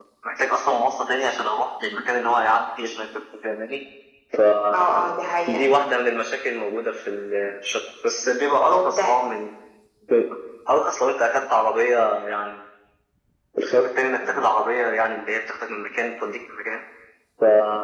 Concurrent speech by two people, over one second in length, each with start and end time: none

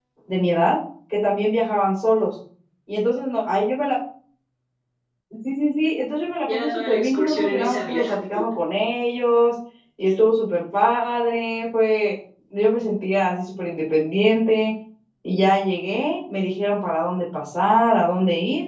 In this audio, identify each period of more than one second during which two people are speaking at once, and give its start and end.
6.5-8.0

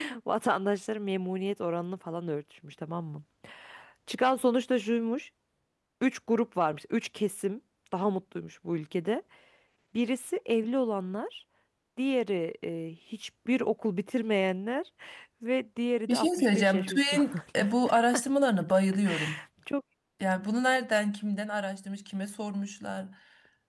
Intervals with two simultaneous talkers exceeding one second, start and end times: 16.1-17.7

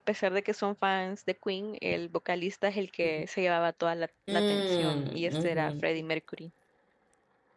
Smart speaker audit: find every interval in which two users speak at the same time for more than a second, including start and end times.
4.3-5.8

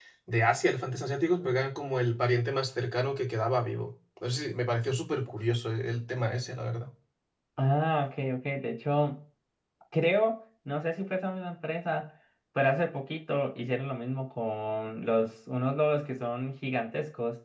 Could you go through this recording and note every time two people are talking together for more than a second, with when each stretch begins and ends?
none

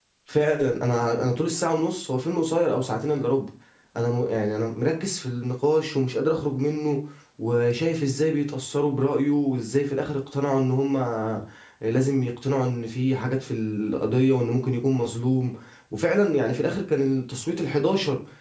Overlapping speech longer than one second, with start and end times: none

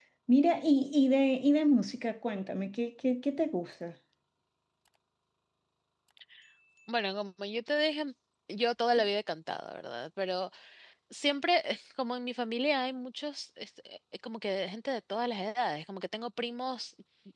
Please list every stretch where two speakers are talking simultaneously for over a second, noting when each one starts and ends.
none

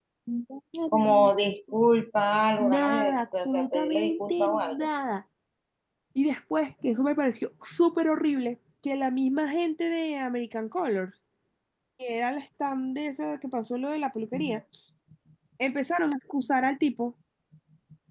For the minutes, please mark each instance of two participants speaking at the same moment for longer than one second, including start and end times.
2.6-4.9

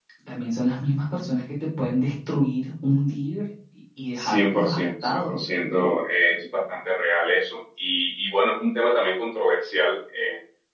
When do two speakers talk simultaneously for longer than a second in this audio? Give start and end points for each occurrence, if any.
4.2-5.4

